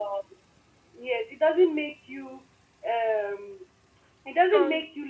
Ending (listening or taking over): listening